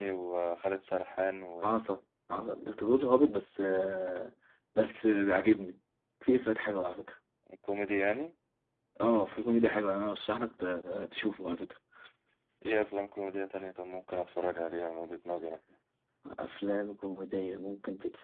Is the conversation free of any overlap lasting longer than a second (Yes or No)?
Yes